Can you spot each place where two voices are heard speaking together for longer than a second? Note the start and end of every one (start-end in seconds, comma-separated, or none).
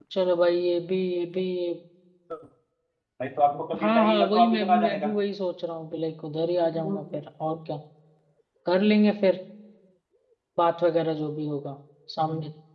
3.8-5.1